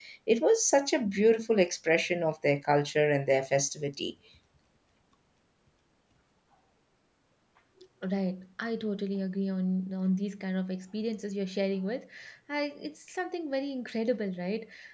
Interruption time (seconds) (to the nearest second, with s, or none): none